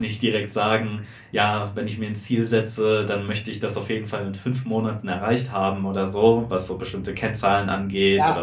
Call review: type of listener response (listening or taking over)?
taking over